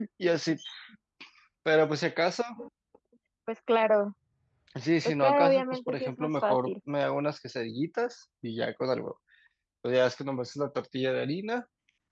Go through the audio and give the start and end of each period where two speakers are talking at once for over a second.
5.0-6.7

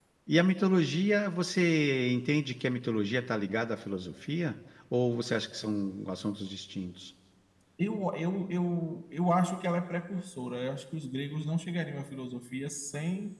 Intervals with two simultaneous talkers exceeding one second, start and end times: none

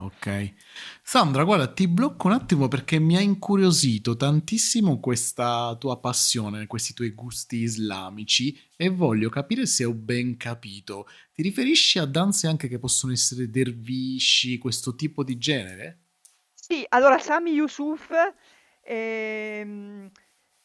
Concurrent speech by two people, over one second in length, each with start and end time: none

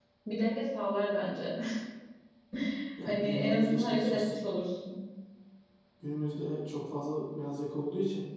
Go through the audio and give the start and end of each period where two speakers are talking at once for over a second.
3.0-4.3

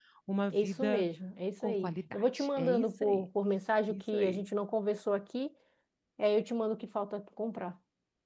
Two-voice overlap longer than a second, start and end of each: 1.6-3.2

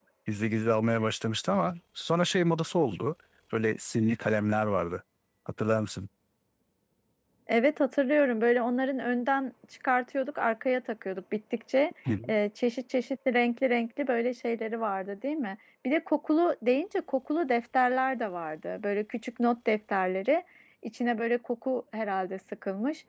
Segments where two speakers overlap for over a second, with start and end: none

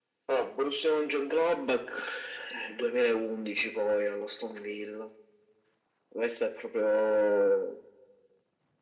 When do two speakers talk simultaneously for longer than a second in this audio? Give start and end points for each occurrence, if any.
none

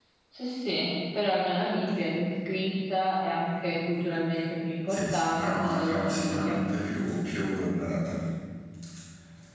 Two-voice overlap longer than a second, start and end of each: 4.9-6.5

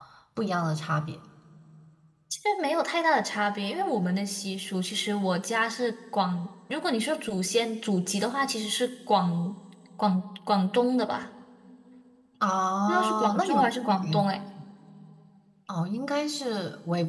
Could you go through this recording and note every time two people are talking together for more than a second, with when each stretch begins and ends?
12.9-14.2

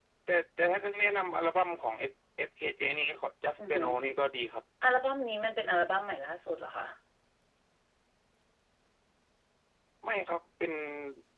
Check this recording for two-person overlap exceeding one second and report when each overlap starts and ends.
none

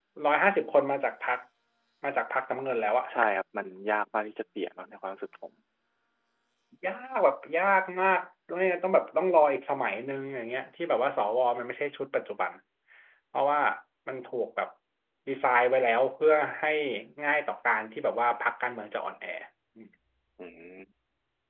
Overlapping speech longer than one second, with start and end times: none

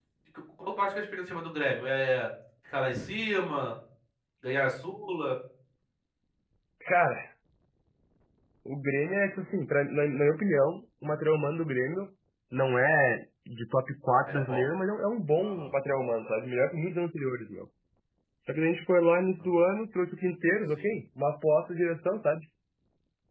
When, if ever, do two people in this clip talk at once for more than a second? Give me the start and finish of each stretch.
none

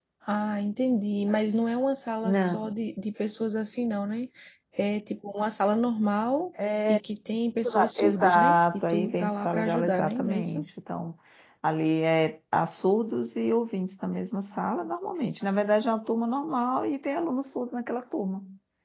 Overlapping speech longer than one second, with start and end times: 7.6-10.6

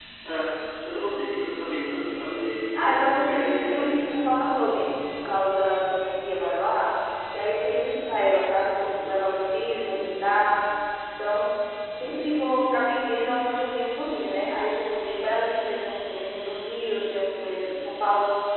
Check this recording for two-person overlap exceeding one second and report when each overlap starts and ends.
2.7-4.0

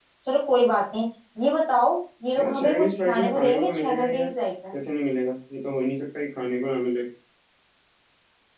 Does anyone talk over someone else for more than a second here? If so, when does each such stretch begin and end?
2.4-4.3

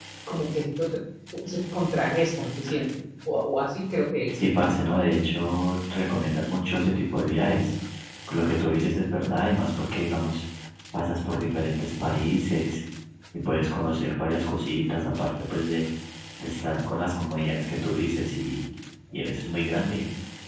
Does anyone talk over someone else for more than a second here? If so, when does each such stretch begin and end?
none

